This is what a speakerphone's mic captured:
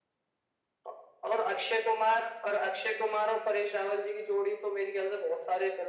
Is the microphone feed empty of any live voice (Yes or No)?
Yes